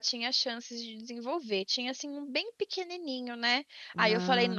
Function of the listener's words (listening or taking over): listening